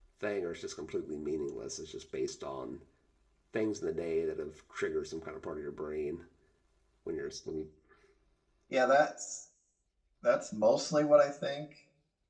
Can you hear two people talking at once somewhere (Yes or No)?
No